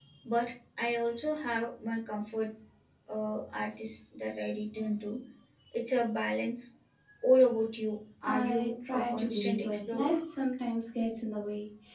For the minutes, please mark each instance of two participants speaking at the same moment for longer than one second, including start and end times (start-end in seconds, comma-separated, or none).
8.2-10.2